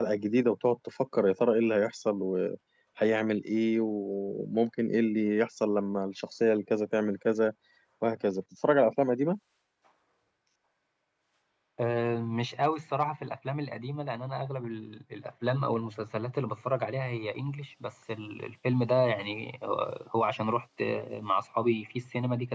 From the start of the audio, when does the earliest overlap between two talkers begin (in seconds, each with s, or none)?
none